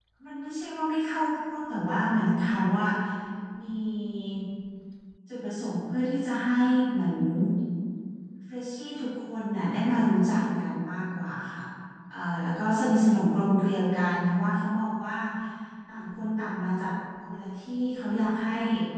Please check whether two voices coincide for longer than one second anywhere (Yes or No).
No